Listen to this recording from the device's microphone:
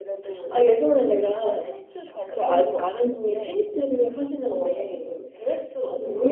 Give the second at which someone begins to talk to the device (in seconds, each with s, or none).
none